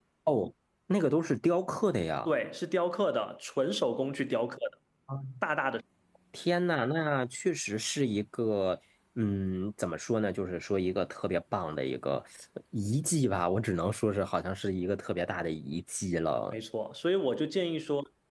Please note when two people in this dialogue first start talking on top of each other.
none

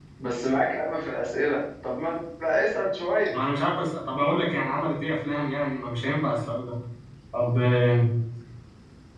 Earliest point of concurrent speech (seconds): none

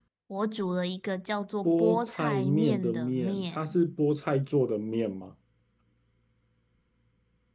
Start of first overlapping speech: 1.6 s

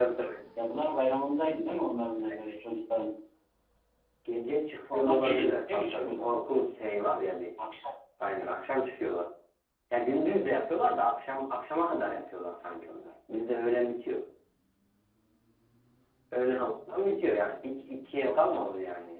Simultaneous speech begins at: 4.9 s

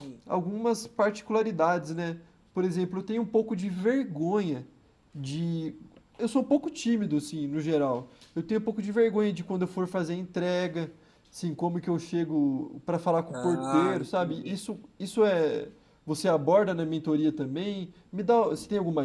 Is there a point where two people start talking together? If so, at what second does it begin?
13.3 s

